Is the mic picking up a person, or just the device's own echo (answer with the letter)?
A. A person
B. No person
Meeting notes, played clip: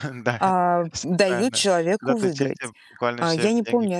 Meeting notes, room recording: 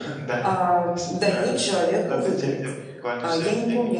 B